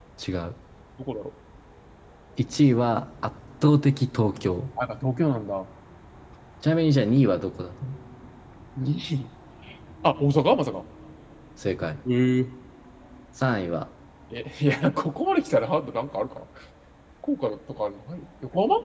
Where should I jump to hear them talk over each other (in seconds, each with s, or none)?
none